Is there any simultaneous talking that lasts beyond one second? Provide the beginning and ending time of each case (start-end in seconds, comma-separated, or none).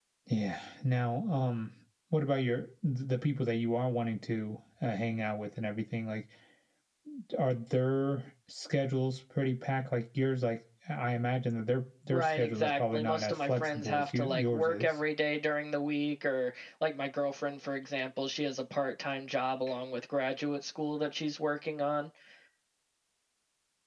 12.1-15.0